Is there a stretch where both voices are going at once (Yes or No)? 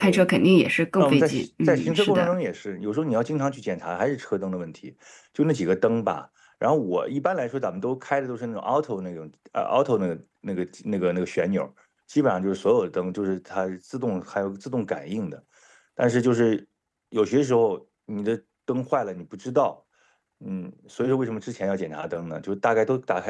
Yes